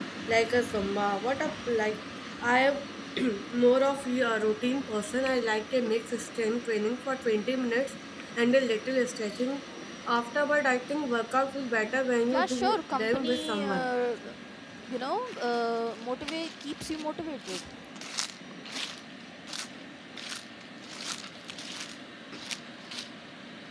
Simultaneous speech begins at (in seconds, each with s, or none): 12.2 s